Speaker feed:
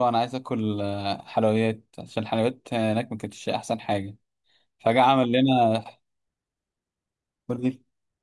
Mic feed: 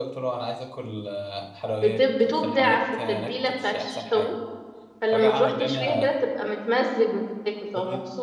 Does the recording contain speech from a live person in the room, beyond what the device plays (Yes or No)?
Yes